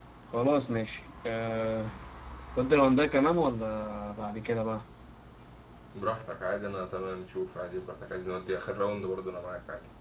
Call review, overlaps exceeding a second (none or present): none